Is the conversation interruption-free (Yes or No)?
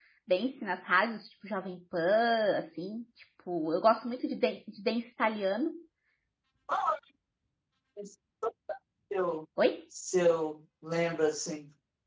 Yes